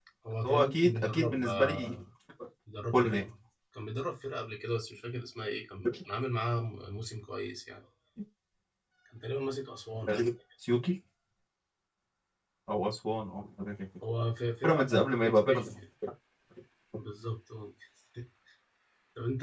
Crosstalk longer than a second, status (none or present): present